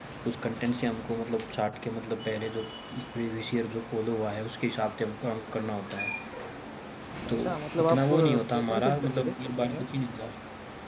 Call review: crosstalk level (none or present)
present